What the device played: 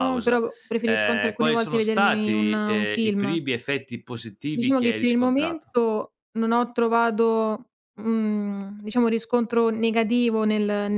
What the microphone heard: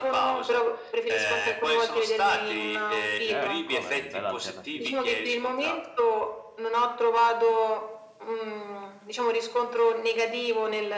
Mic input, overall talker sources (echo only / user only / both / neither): both